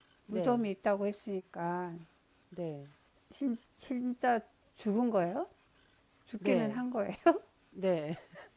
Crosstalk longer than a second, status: none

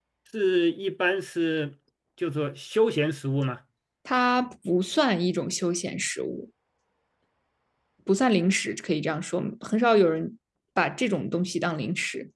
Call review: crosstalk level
none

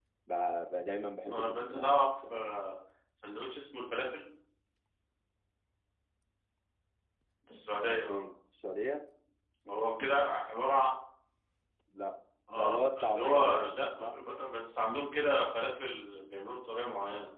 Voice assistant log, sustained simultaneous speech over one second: present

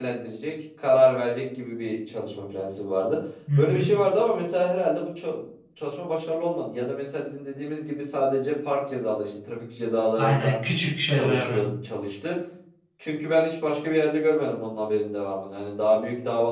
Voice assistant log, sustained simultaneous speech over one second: none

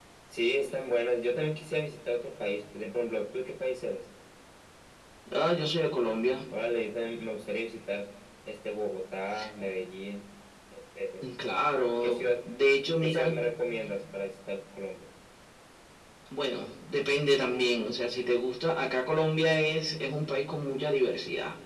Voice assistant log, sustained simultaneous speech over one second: none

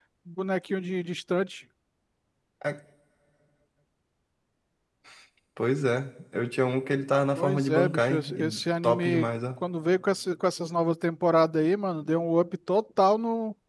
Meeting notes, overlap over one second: present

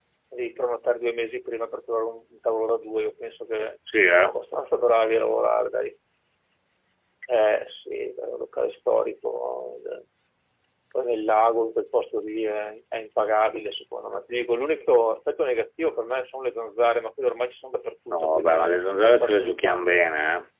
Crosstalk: present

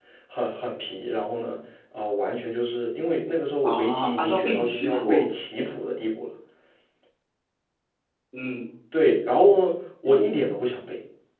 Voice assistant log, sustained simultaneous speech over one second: present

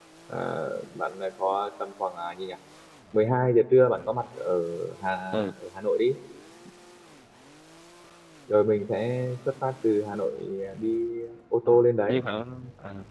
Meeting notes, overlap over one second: none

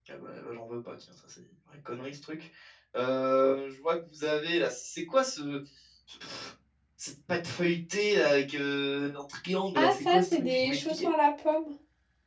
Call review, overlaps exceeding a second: present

